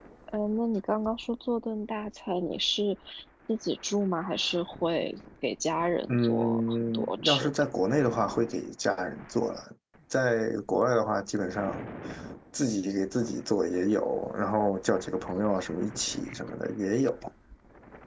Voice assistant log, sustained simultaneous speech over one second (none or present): present